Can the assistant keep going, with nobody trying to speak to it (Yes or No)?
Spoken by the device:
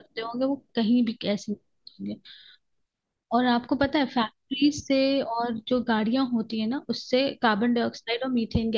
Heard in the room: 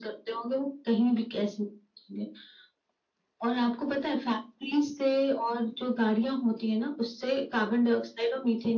Yes